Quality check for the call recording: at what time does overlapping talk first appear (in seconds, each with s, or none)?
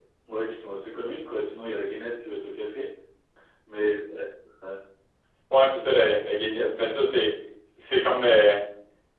none